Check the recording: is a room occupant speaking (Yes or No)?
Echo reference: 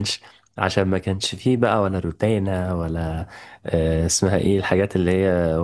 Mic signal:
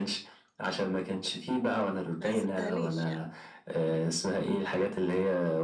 Yes